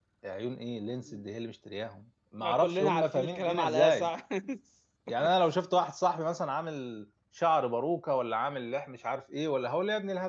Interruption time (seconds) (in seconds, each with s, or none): 2.4 s